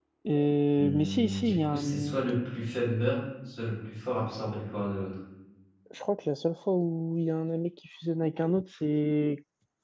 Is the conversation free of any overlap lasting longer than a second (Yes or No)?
No